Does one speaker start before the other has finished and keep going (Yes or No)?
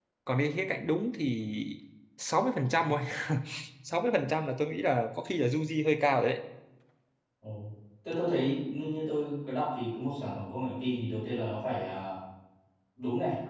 No